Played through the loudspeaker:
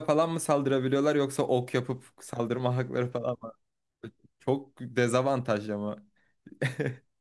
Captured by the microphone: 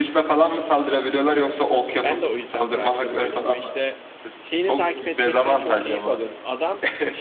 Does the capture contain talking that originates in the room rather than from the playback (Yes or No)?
Yes